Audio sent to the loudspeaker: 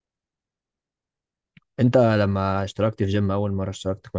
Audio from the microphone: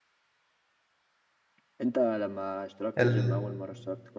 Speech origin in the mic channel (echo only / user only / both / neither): both